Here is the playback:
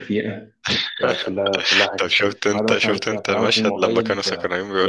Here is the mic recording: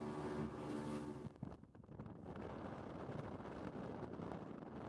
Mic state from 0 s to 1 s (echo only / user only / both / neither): neither